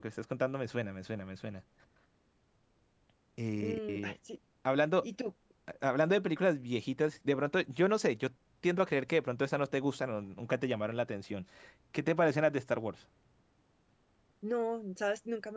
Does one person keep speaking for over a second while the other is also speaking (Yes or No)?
No